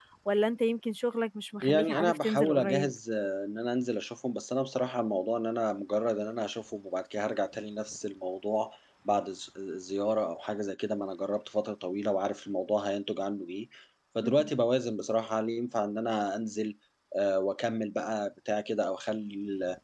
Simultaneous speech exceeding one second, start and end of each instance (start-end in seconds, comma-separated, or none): 1.6-2.9